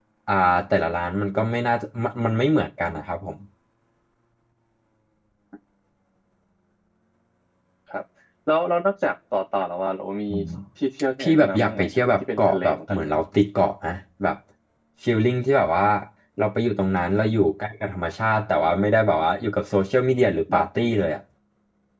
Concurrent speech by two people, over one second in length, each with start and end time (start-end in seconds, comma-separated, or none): 11.2-13.1